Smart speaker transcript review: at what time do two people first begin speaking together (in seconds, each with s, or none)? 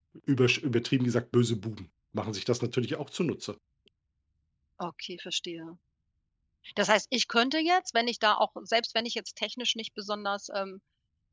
none